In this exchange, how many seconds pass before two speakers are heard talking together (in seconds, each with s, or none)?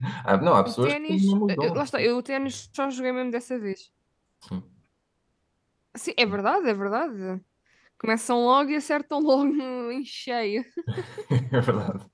0.7 s